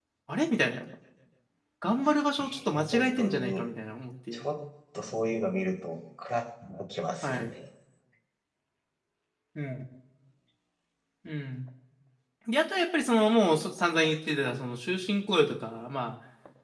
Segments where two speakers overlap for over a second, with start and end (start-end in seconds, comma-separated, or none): 2.4-3.6